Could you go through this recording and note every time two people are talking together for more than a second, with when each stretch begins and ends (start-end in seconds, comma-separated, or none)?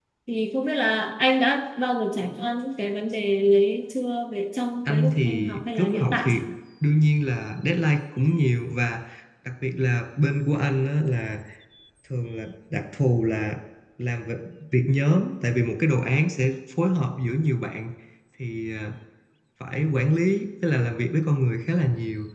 4.8-6.3